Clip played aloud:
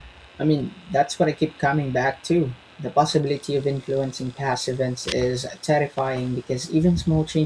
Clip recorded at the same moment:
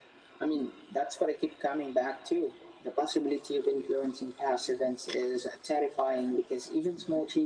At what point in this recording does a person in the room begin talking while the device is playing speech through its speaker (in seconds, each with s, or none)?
none